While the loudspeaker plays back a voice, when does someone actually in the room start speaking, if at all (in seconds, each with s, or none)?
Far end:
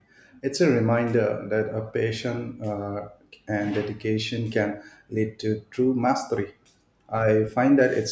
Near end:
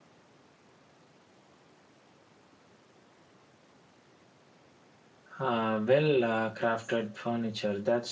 5.4 s